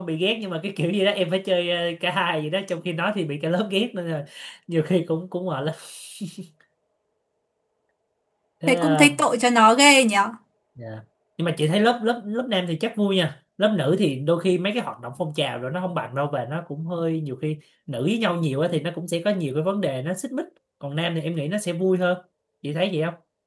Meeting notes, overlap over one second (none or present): none